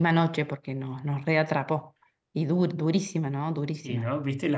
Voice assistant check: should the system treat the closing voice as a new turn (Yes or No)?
Yes